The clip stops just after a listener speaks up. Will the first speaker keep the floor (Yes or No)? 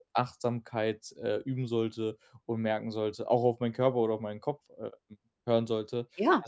Yes